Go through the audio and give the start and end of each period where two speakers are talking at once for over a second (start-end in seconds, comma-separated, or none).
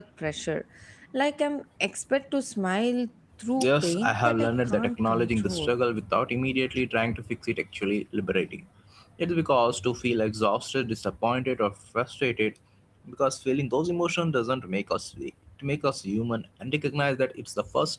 3.6-5.7